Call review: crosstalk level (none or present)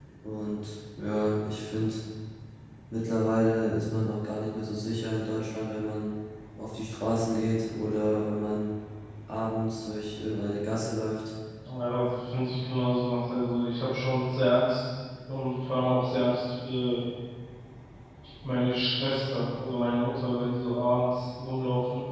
none